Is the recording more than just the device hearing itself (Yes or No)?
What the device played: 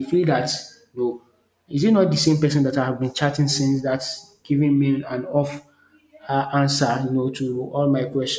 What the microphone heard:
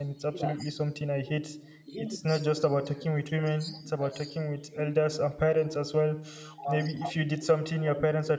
Yes